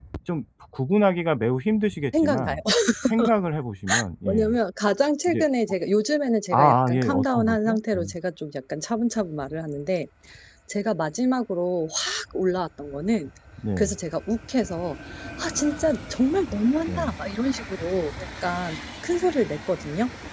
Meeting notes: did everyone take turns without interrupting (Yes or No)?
No